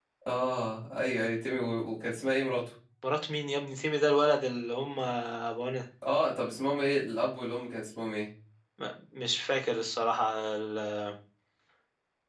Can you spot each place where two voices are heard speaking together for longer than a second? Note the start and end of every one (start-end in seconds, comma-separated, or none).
none